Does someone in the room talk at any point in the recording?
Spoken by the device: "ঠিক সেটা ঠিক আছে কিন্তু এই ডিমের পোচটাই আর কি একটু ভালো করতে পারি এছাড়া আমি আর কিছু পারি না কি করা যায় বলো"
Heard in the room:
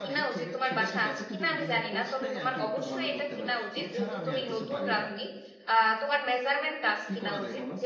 Yes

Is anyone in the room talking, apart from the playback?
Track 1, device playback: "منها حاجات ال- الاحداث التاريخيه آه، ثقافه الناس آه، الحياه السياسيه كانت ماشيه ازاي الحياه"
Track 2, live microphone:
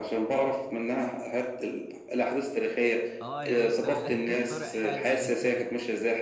Yes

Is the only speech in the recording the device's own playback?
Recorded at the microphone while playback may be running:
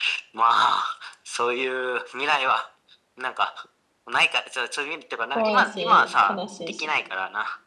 No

